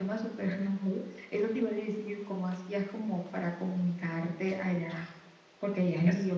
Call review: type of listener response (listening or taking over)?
taking over